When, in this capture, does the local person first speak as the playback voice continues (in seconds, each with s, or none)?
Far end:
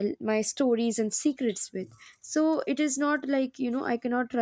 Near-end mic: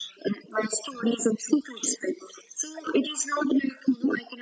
none